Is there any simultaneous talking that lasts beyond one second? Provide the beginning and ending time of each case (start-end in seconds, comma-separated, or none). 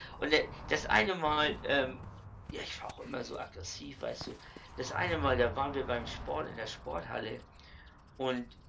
none